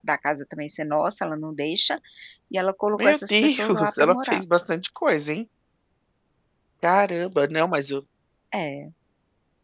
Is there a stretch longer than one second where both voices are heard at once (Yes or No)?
Yes